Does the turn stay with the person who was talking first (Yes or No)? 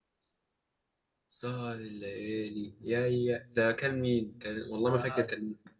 No